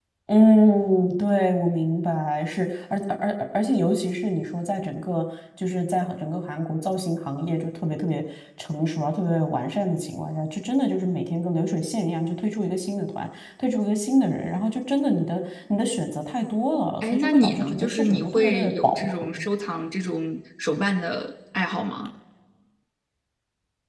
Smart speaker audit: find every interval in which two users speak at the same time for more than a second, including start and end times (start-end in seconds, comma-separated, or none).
17.0-19.1